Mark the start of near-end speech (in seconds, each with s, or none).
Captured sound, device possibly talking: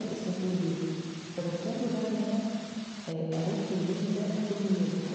none